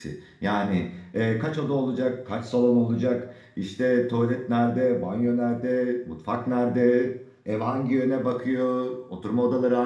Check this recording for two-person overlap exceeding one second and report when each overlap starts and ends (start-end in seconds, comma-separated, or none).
none